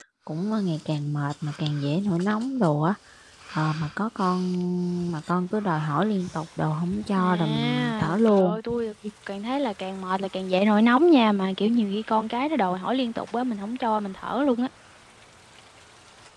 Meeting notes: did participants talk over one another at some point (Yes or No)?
Yes